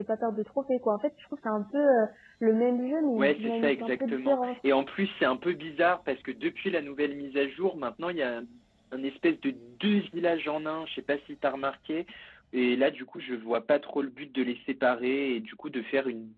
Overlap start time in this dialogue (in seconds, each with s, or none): 3.2 s